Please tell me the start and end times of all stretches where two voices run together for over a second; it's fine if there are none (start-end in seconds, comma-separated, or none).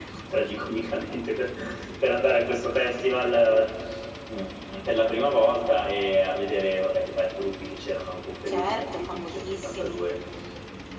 8.5-10.0